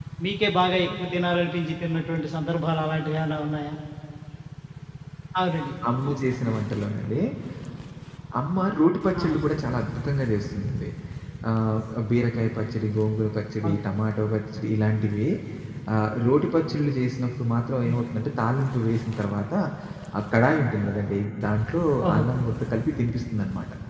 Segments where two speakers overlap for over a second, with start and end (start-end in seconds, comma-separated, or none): none